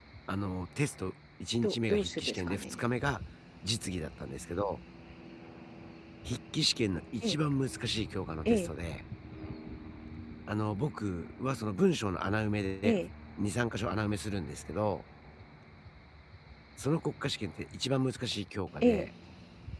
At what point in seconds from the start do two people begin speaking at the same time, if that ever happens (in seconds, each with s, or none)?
1.6 s